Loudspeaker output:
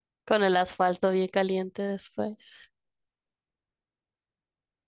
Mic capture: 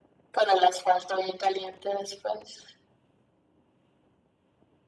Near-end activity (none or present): none